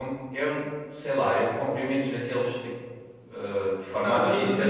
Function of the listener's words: taking over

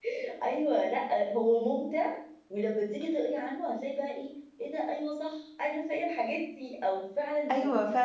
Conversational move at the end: taking over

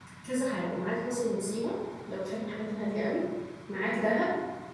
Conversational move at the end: listening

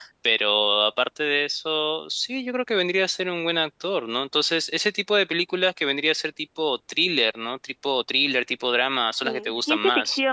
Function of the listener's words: taking over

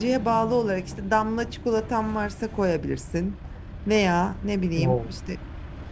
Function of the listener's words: listening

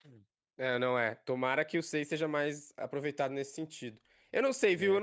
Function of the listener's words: listening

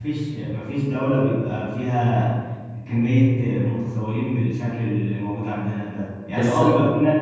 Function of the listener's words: listening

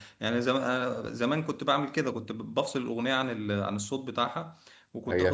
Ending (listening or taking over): taking over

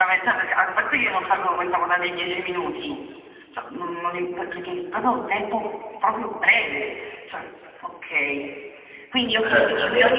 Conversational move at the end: listening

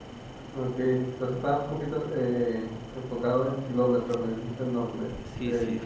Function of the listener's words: taking over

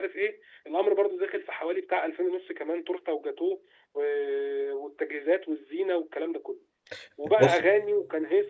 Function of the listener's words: listening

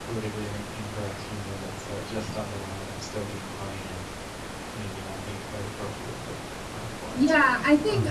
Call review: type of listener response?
taking over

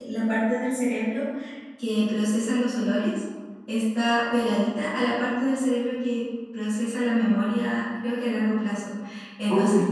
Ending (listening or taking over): listening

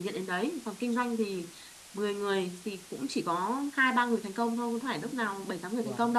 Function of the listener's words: listening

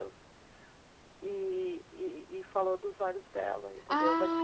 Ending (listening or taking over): taking over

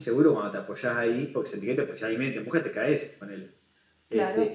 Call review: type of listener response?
listening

